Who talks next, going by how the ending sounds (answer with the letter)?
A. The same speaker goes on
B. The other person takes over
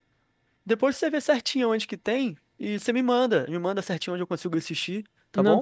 B